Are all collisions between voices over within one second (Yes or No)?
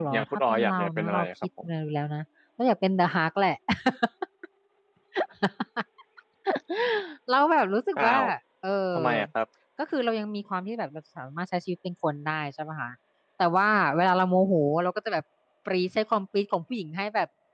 No